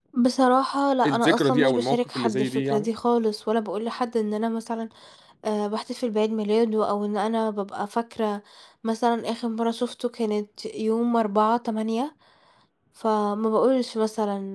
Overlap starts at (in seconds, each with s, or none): 1.1 s